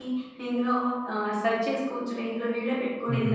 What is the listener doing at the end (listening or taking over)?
taking over